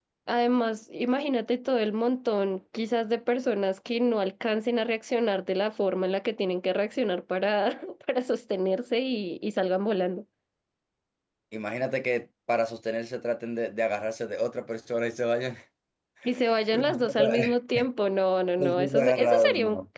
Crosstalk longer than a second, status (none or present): present